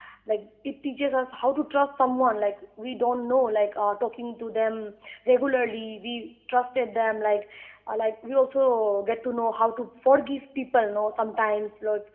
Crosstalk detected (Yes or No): No